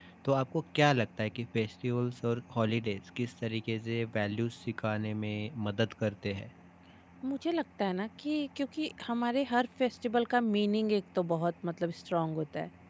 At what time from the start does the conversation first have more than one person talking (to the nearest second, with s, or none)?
none